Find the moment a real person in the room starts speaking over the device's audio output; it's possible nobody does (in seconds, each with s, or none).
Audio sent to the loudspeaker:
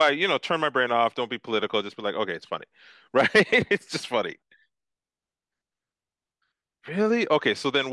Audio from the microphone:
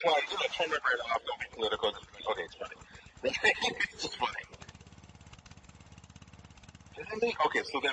none